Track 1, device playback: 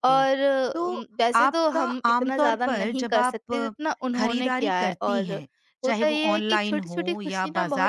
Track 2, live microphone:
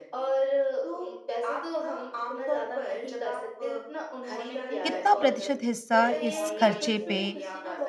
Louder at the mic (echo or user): user